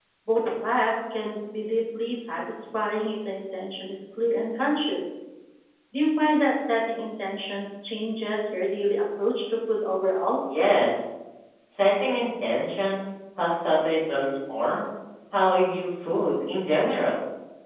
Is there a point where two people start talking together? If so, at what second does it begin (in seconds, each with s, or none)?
none